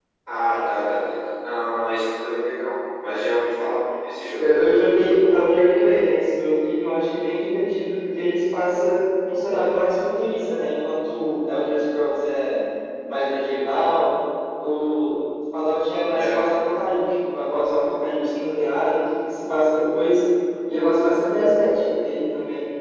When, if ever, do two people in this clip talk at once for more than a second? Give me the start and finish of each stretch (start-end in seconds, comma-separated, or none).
none